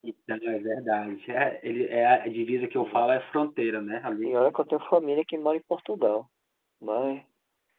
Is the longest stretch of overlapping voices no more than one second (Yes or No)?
Yes